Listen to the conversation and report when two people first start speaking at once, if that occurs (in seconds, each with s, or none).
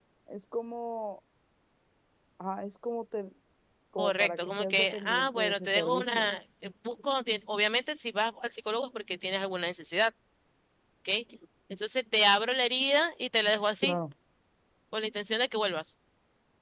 4.0 s